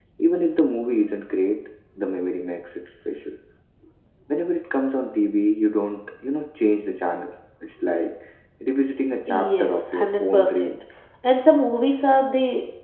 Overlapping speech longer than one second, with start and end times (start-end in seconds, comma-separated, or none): 9.3-10.7